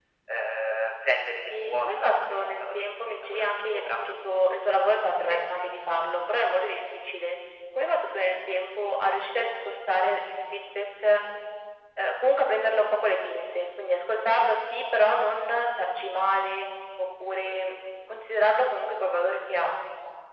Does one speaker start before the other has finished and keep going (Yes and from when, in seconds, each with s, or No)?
Yes, from 1.5 s